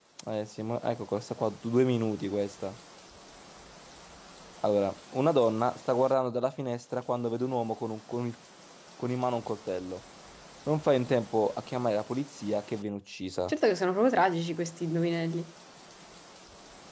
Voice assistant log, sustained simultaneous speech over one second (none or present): none